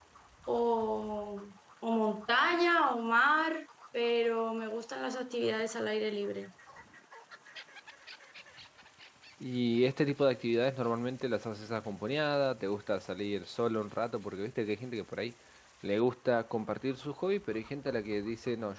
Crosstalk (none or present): none